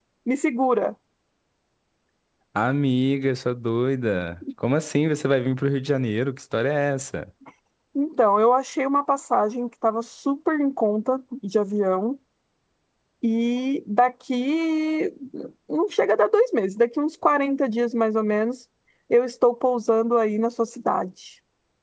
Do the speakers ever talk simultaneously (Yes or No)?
No